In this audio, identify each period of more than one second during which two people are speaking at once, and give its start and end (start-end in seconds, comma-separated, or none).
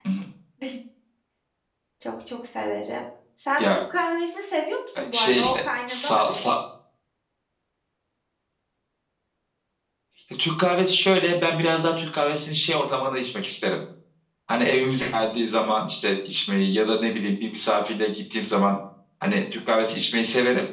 5.1-6.5